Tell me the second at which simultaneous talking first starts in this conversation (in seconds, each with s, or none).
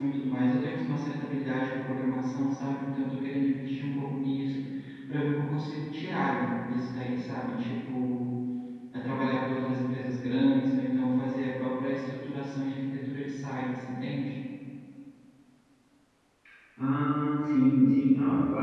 none